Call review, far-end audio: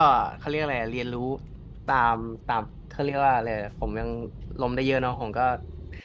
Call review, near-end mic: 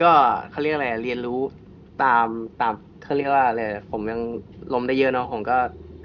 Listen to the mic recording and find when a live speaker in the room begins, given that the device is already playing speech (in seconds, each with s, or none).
none